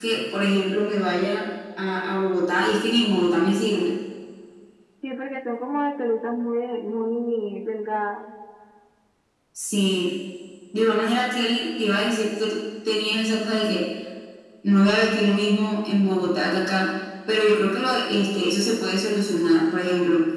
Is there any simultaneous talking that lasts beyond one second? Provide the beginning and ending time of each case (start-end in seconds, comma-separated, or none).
none